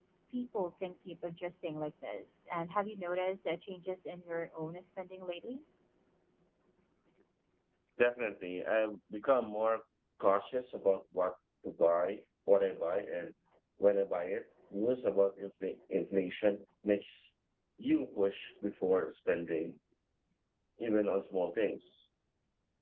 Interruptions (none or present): none